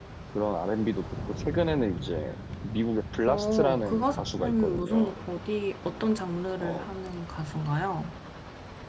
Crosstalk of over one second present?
Yes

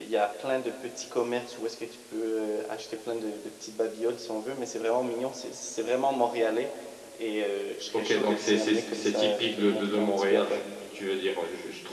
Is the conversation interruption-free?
No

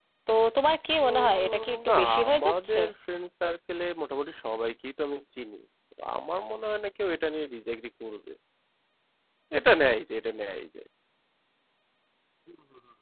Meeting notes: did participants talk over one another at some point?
Yes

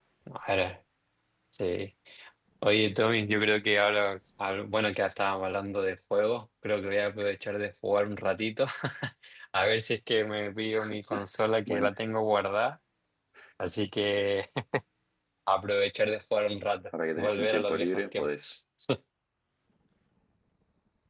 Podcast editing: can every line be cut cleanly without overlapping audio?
No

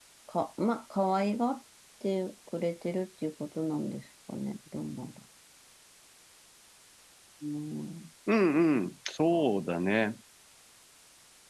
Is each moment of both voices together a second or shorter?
Yes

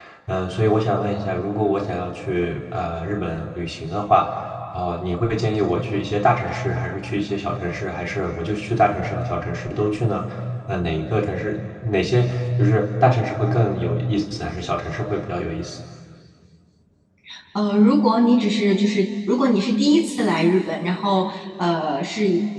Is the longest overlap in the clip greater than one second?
No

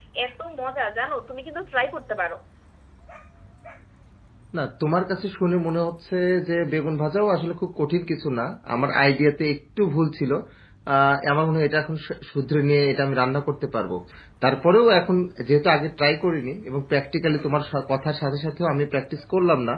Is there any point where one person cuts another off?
No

